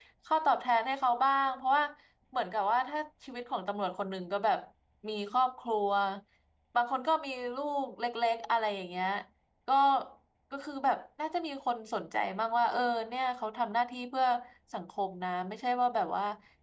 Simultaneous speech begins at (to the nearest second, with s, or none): none